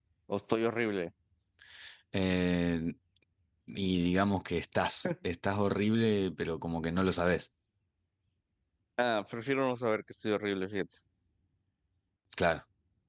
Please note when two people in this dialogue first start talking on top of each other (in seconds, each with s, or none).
none